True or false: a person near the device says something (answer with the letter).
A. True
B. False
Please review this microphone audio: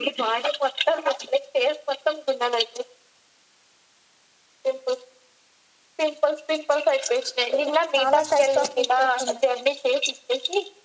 A